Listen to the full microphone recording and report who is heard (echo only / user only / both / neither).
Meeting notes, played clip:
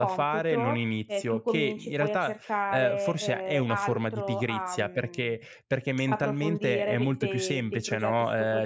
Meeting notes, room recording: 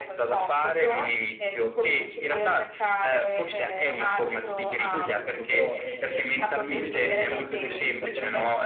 both